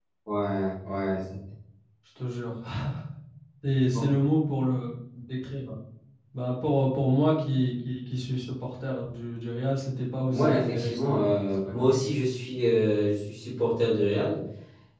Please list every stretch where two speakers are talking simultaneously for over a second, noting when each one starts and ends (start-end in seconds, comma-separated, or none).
10.3-11.9